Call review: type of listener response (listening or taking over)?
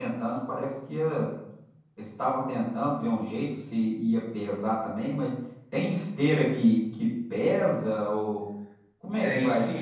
taking over